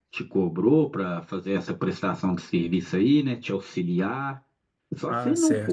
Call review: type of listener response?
taking over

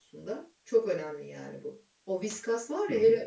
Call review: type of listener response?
listening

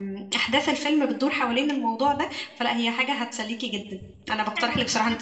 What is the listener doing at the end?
taking over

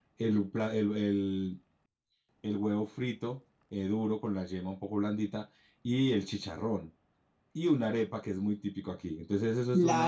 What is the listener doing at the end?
taking over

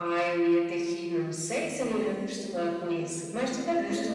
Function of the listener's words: taking over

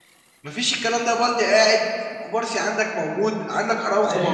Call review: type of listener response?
taking over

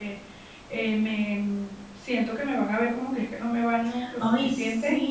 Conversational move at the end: taking over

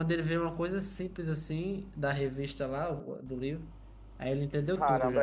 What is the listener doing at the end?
taking over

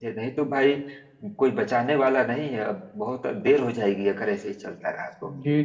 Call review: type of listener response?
taking over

